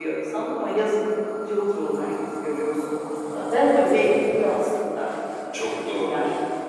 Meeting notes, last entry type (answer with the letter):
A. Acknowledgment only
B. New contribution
B